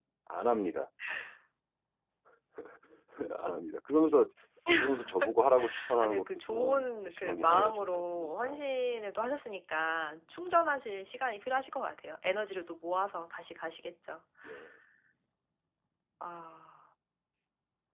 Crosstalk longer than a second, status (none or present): present